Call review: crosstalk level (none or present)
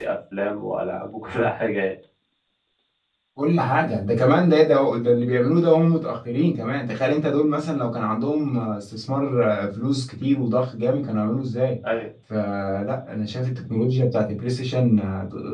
none